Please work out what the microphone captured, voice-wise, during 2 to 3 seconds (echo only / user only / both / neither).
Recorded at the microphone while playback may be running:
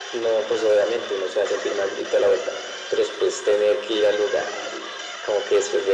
echo only